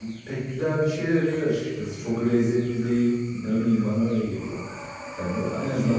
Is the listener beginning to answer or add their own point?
No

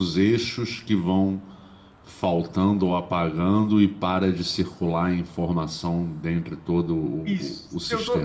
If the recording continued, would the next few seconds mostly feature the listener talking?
Yes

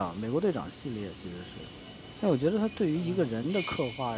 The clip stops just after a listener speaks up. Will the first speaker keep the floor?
Yes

